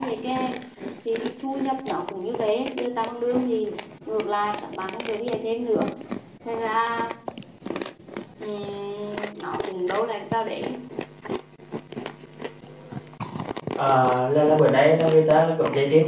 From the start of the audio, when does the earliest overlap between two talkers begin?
none

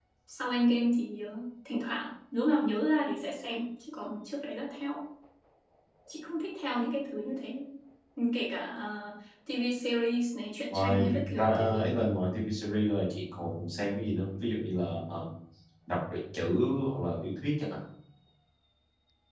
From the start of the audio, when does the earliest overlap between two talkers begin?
10.7 s

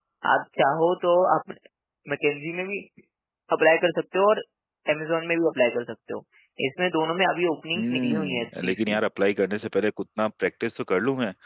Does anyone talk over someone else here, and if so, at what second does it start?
7.7 s

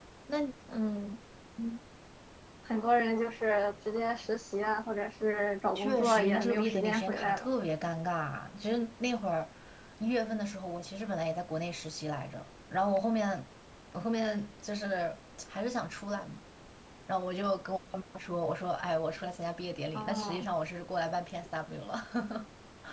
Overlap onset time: 5.8 s

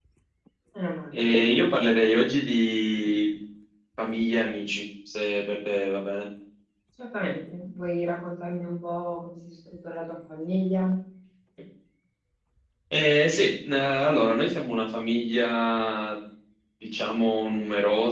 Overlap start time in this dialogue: none

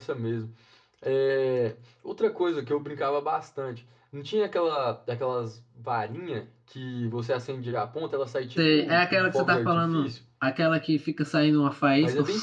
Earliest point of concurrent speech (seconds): 8.6 s

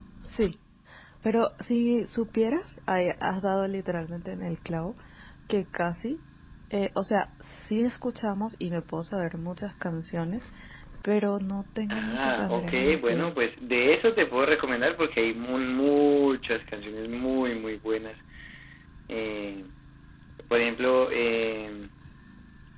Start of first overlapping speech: 11.9 s

